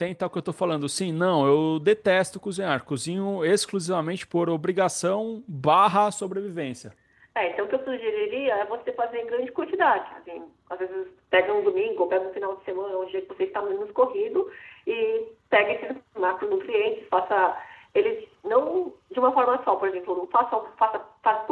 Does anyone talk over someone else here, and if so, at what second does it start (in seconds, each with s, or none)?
none